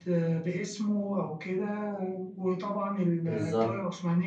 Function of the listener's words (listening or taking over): listening